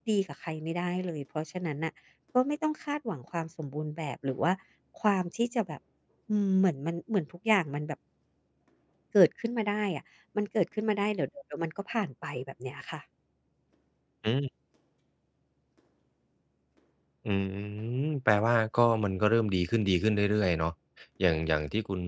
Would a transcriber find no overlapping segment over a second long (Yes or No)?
Yes